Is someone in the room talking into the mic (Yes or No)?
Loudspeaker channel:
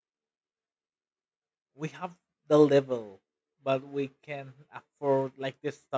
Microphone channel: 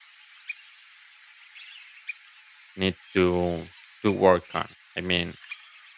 Yes